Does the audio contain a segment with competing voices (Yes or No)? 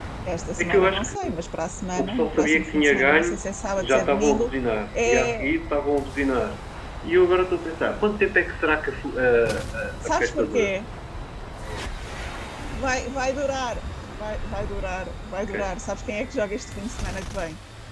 Yes